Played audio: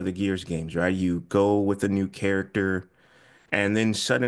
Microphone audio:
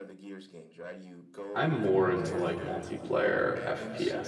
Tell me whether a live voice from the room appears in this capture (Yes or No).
Yes